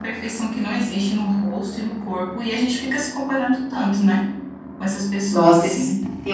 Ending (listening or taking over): taking over